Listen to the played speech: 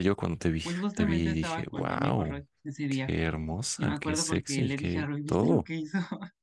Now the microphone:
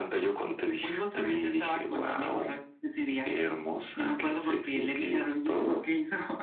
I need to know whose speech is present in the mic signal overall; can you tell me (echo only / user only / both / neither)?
echo only